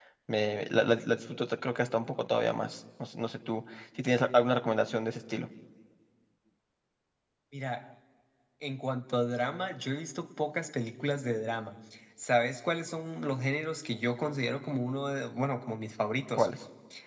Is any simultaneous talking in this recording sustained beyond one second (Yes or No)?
No